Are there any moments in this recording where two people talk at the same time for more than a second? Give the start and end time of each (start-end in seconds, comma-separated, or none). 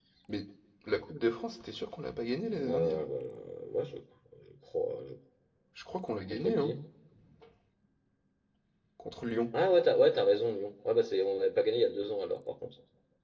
none